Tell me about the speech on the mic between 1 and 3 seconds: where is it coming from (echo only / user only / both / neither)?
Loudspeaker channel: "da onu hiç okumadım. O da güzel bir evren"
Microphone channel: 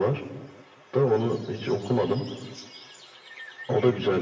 echo only